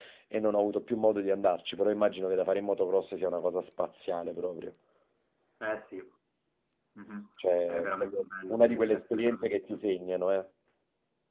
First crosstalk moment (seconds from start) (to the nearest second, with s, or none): 8 s